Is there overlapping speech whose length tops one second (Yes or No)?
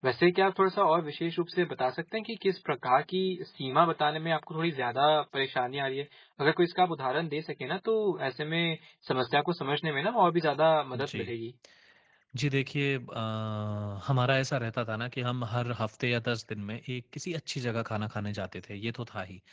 No